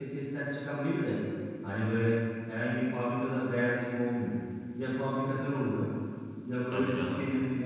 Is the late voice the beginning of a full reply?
No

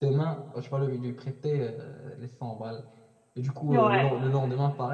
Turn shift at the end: No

